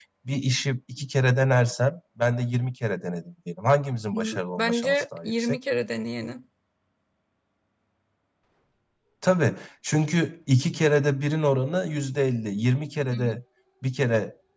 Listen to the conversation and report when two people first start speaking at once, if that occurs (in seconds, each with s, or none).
4.1 s